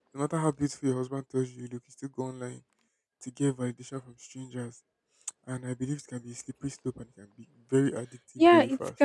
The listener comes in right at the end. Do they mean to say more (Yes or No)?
Yes